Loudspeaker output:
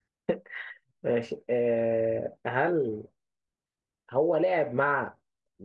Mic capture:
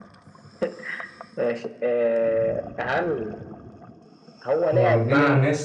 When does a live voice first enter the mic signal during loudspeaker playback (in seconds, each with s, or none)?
4.7 s